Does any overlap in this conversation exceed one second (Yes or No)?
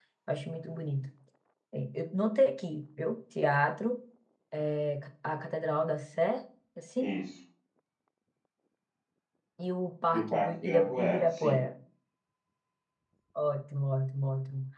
Yes